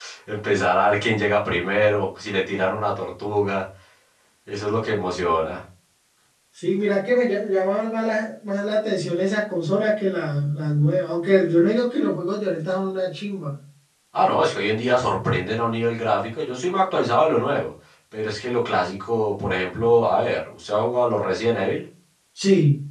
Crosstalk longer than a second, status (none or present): none